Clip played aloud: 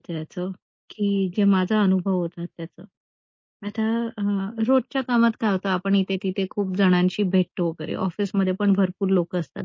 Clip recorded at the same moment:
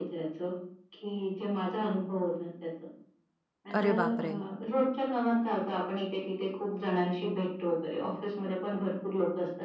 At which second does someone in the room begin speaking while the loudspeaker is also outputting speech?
3.8 s

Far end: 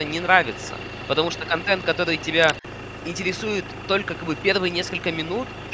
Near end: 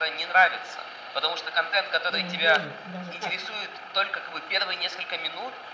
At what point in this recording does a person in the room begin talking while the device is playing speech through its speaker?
2.0 s

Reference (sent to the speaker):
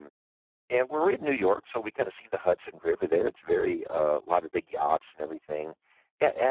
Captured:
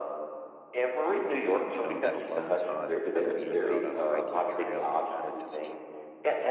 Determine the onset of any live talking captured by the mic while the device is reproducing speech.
1.7 s

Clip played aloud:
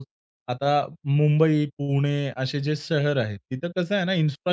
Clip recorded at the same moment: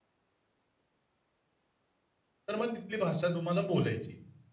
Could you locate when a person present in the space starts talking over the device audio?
2.5 s

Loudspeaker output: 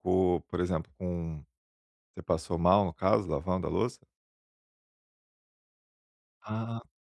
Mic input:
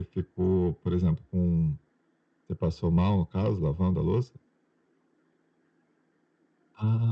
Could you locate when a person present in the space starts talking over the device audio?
none

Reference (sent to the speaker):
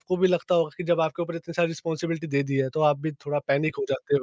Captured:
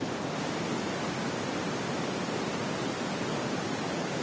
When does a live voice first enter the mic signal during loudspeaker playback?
none

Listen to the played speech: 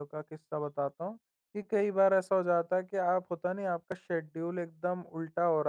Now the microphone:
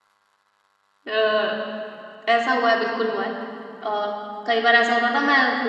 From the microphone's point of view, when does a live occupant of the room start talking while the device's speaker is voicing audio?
1.1 s

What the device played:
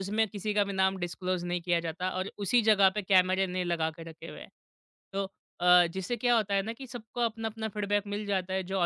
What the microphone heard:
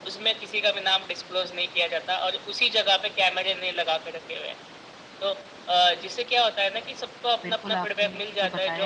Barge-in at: 7.4 s

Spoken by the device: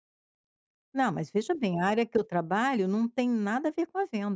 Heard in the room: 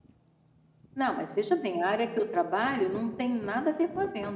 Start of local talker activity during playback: none

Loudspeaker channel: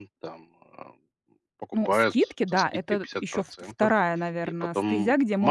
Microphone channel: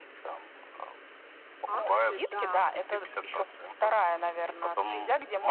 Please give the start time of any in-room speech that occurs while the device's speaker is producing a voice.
1.6 s

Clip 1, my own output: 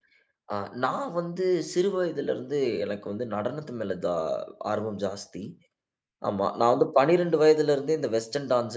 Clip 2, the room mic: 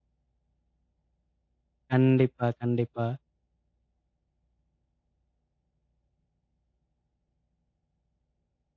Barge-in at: 1.9 s

